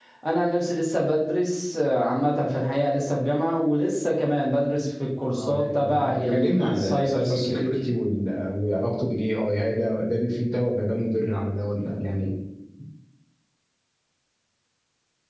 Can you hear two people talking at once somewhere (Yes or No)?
Yes